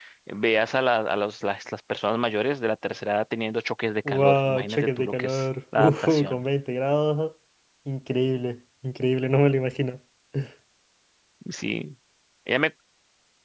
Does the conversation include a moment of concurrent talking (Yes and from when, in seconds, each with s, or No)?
Yes, from 4.0 s